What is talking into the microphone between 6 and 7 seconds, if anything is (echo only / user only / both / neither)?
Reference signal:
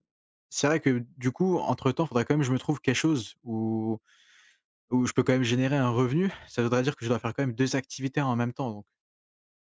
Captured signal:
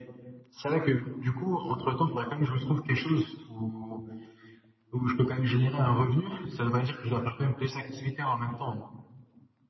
echo only